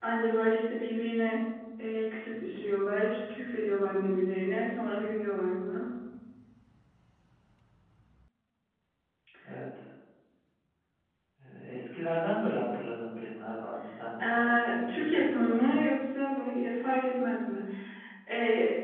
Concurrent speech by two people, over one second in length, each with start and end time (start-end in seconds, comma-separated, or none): 14.3-15.8